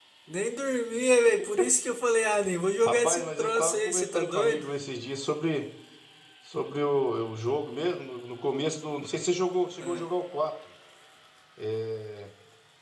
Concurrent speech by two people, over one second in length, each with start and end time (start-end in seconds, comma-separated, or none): 2.9-4.7